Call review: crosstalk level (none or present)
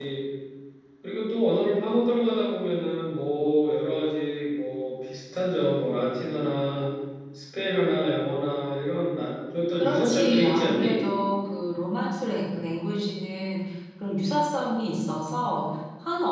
present